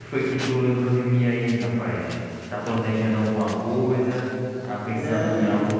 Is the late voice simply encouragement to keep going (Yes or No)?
Yes